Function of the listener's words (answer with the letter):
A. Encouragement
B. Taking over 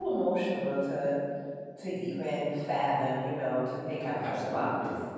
B